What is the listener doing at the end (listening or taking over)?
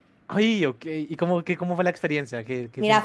taking over